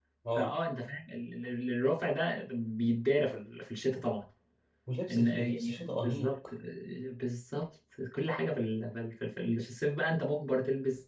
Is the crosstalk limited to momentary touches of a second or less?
No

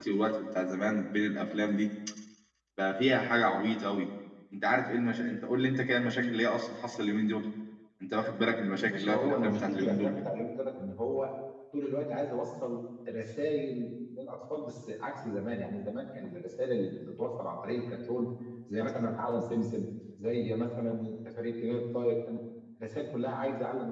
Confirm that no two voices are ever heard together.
No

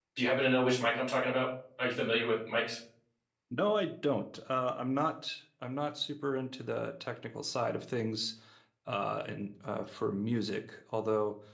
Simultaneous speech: No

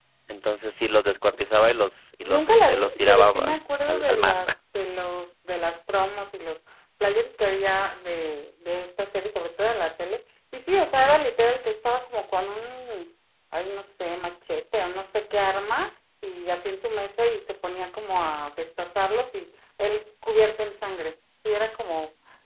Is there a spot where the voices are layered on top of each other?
Yes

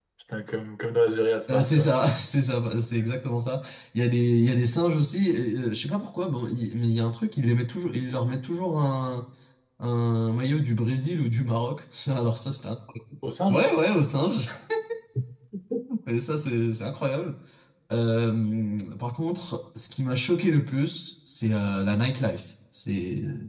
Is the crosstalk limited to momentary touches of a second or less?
Yes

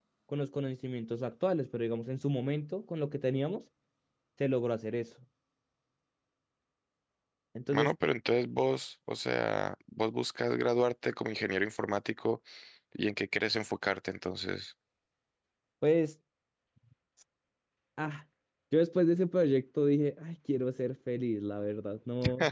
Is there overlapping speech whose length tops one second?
No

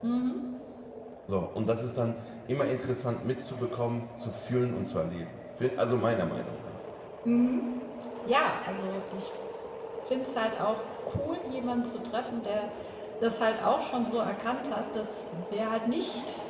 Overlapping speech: No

